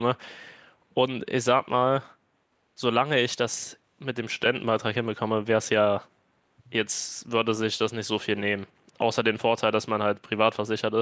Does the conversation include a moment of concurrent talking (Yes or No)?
No